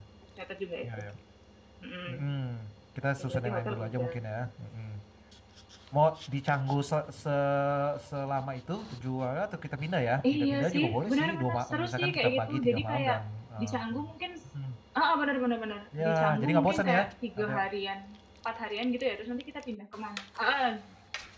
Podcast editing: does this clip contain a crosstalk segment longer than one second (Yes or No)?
Yes